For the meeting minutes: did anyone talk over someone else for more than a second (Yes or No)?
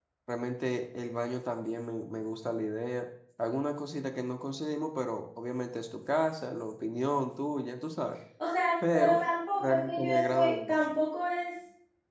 Yes